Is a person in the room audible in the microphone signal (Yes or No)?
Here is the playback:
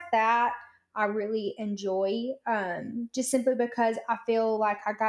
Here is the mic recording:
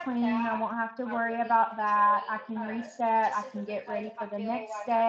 Yes